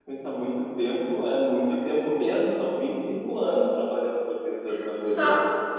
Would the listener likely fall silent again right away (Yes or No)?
No